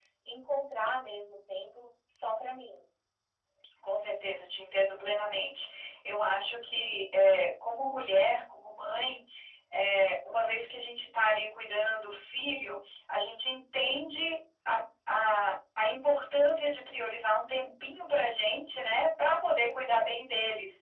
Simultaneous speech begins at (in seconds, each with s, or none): none